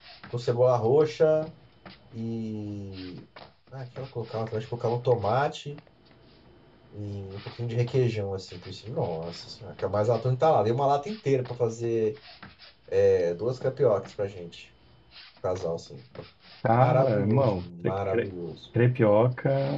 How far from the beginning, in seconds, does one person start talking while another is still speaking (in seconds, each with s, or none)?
16.8 s